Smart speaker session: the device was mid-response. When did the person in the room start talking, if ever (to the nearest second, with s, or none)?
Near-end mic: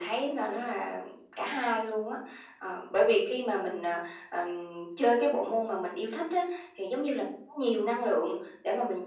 none